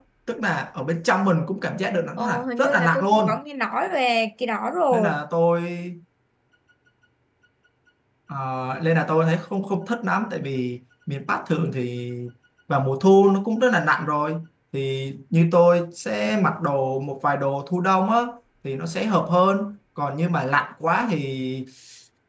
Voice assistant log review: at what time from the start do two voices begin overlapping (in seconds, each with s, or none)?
2.2 s